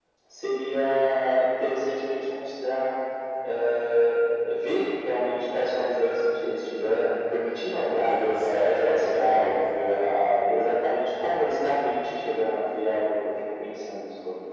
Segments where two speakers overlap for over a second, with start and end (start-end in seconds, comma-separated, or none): 7.9-9.6